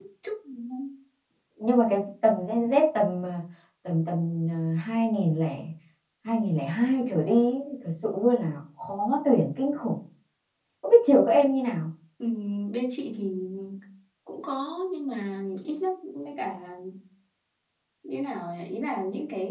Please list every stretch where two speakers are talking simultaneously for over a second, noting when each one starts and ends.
none

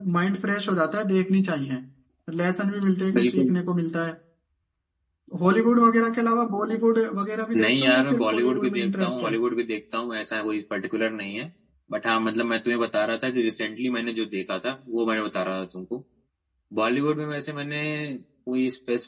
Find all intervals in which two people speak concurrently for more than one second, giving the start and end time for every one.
7.6-9.3

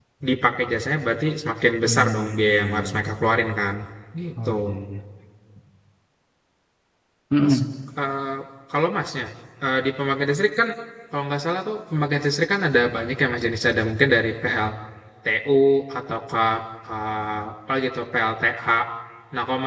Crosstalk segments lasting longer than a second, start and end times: 1.8-3.2

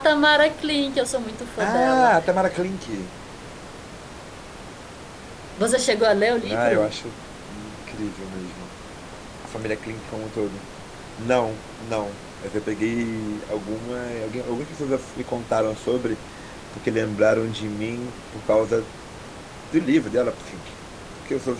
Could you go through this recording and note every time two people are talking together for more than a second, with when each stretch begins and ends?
none

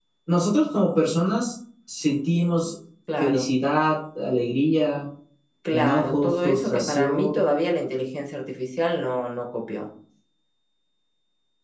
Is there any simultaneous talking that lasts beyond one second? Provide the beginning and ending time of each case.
5.7-7.5

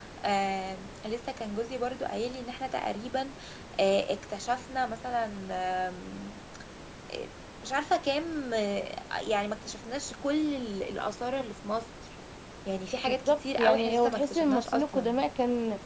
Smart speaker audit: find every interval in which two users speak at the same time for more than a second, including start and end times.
13.1-15.2

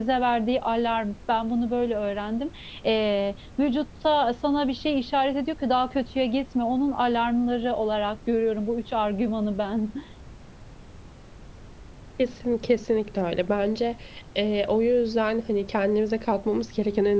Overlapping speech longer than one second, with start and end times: none

